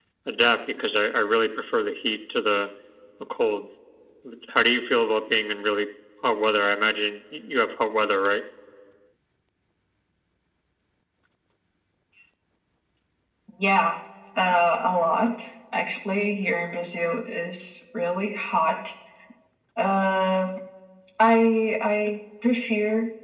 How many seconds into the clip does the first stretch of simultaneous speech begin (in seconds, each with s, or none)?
none